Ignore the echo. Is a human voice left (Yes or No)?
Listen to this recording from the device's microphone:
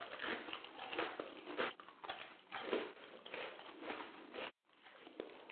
No